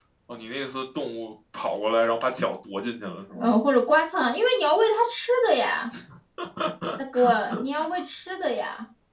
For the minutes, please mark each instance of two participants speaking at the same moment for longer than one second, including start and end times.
none

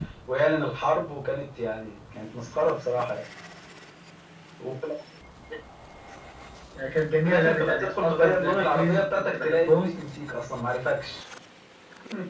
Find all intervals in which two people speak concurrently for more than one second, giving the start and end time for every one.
7.2-9.9

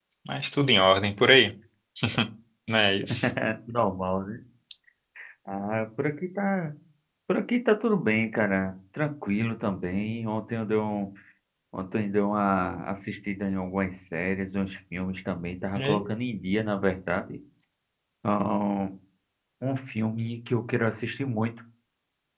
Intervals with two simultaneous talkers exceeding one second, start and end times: none

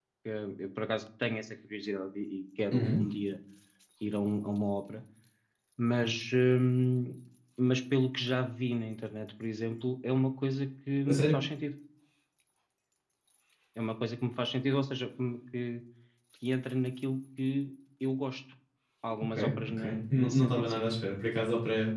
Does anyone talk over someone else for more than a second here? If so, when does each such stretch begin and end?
19.2-20.9

